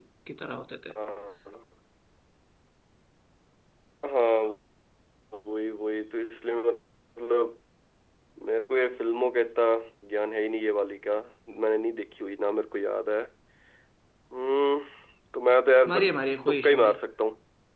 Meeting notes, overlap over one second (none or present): none